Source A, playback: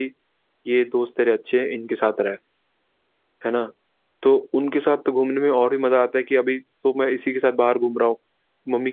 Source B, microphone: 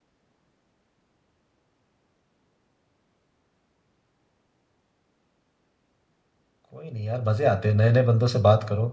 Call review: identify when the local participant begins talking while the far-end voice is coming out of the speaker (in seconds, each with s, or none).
6.7 s